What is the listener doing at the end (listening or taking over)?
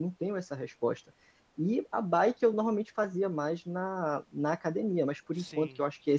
listening